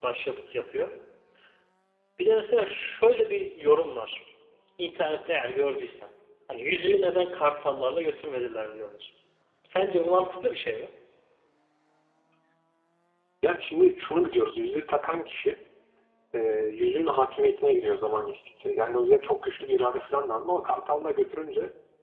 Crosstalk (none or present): none